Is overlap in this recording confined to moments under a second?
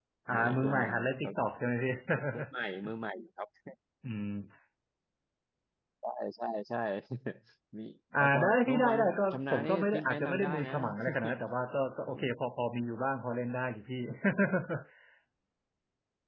No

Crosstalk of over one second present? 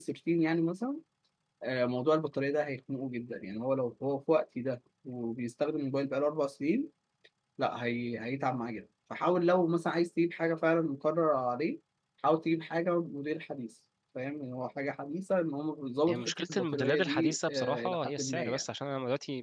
Yes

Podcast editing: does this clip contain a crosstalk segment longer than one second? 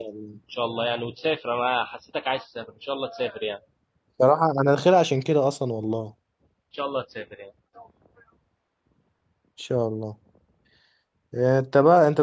No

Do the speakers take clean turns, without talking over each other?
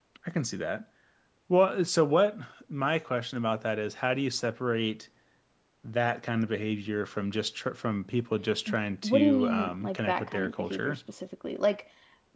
No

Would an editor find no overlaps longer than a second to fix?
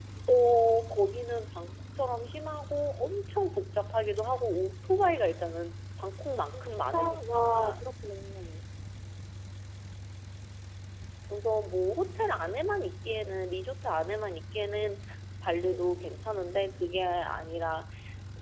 No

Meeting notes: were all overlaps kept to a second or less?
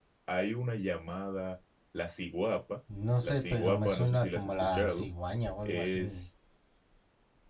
No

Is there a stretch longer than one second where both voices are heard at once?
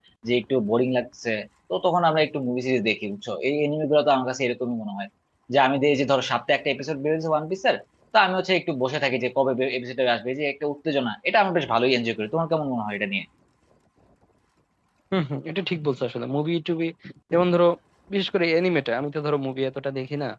No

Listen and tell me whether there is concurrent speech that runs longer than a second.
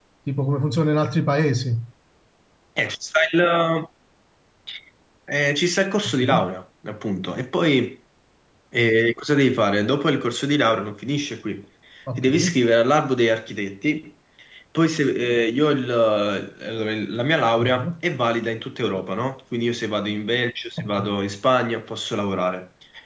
No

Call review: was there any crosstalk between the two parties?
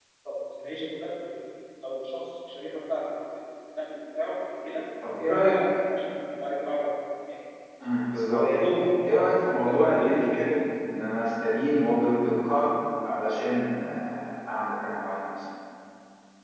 Yes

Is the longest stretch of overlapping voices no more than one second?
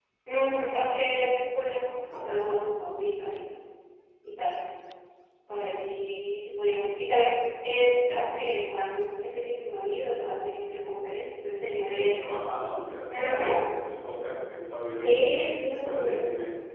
No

